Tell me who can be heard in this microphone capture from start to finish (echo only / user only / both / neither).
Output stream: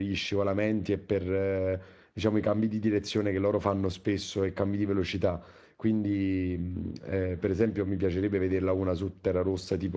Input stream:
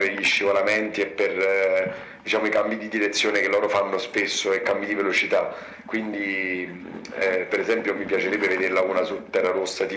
echo only